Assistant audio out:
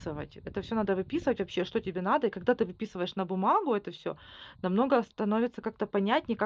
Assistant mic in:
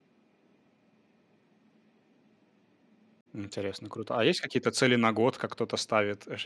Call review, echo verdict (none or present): none